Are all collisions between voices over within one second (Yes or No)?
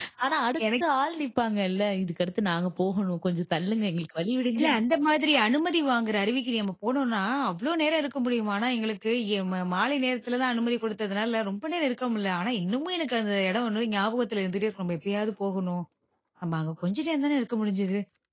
Yes